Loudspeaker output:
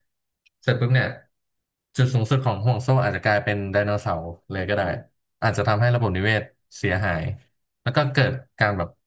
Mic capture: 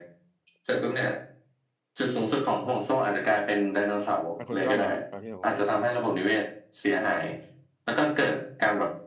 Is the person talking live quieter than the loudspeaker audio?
Yes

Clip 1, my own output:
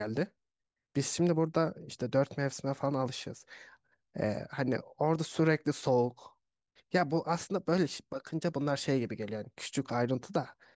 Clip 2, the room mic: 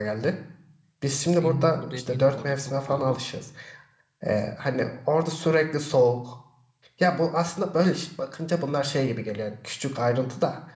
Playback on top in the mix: Yes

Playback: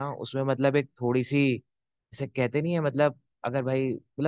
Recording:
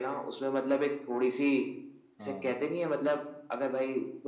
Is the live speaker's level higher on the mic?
No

